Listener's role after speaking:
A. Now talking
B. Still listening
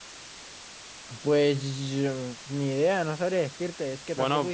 A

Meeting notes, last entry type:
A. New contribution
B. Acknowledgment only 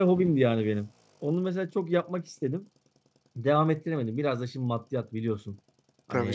B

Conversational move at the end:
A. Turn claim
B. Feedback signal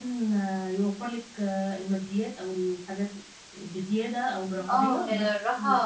A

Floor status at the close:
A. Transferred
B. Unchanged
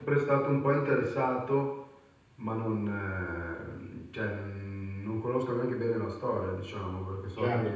A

